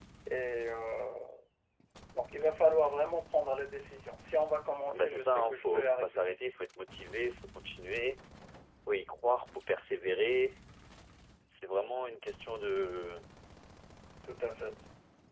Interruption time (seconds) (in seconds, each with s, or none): 4.9 s